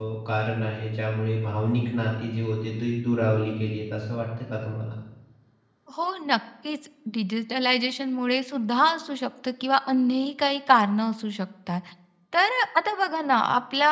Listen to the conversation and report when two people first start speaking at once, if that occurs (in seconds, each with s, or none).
none